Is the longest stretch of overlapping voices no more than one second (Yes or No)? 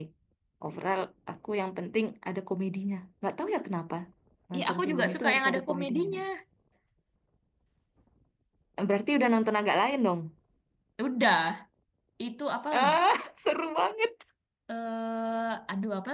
No